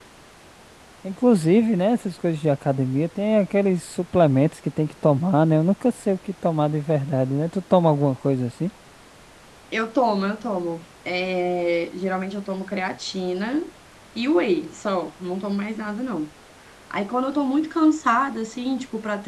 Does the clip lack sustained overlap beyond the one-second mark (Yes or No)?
Yes